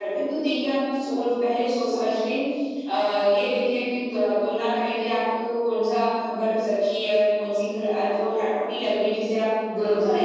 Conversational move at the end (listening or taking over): taking over